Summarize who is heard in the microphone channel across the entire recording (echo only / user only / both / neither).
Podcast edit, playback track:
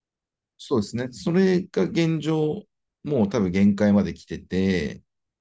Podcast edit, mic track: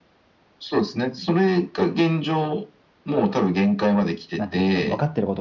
both